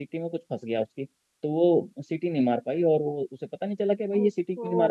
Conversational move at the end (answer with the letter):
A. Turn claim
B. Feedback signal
B